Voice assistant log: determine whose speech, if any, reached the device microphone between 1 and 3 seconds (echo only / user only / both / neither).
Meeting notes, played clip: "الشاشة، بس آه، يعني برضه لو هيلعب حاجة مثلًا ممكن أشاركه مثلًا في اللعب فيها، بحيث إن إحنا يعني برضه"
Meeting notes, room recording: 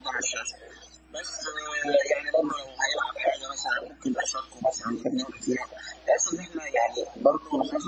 echo only